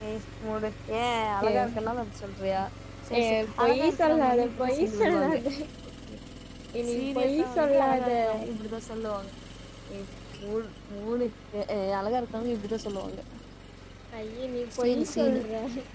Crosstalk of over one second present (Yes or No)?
Yes